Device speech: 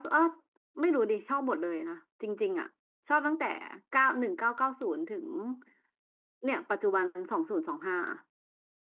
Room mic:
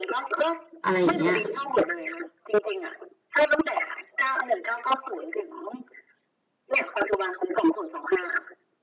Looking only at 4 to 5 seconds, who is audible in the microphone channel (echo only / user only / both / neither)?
echo only